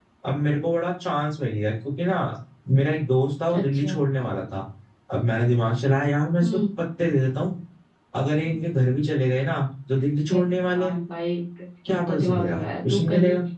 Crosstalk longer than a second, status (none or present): present